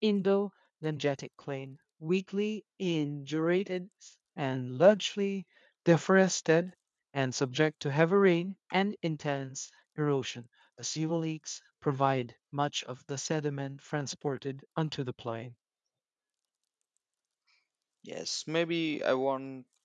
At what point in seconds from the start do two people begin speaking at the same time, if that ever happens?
none

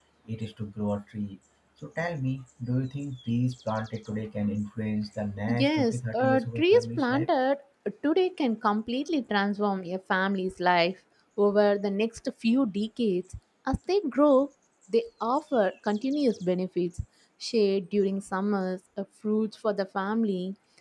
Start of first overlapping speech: 5.5 s

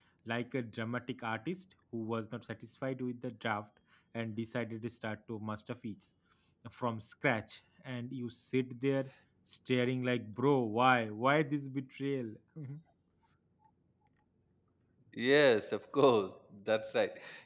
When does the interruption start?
none

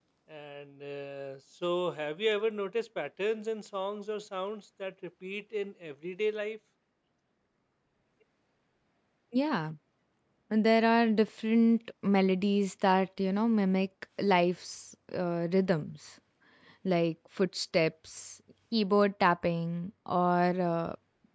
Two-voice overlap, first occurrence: none

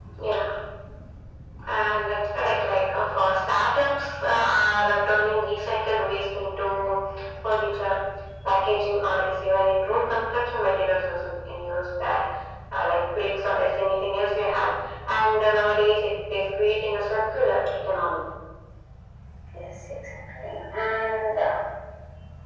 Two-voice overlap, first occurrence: none

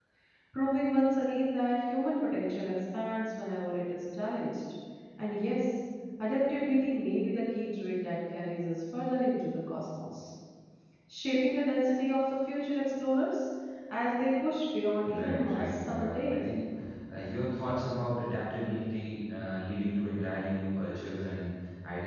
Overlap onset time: 15.0 s

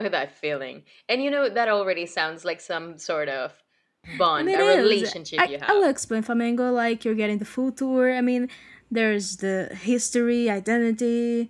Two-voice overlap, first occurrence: 4.4 s

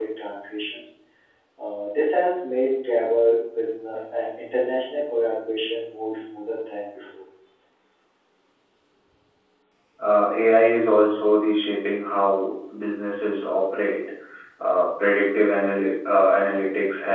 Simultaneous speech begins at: none

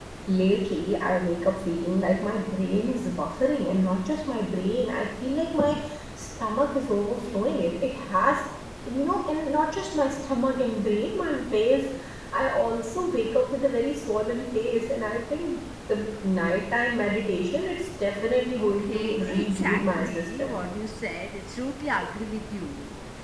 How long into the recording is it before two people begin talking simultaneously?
18.6 s

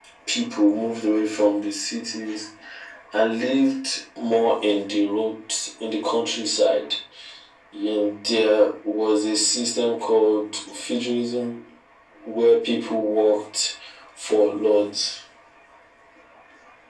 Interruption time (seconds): none

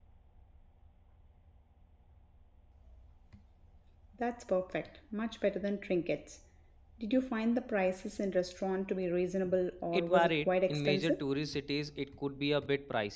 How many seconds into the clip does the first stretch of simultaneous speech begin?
9.9 s

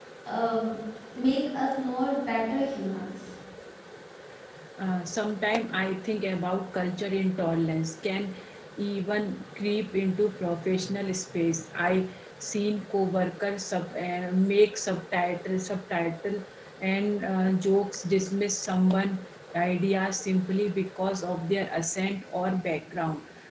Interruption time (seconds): none

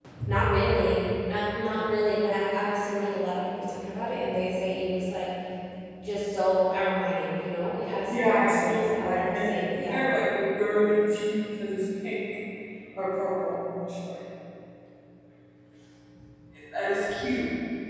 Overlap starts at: 8.1 s

